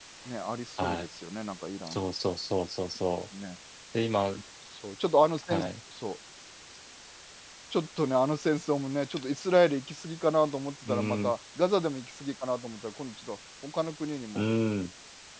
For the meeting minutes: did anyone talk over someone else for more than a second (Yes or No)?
No